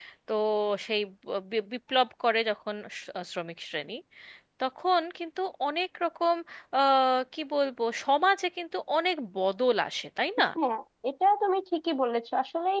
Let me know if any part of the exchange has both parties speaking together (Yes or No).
No